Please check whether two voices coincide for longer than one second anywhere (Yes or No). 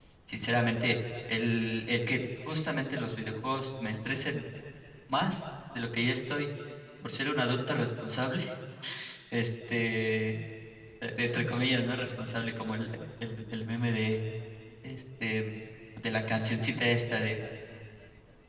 No